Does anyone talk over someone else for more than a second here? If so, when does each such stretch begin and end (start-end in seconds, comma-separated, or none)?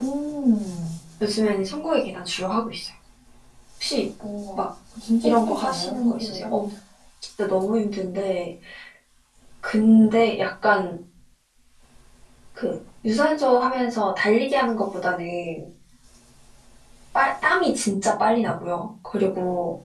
5.2-6.5